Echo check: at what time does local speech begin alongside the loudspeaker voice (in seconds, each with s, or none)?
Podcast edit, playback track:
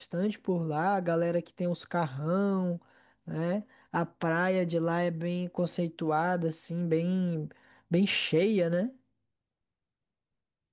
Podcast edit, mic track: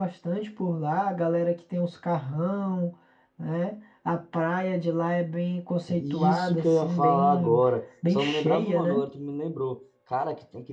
5.9 s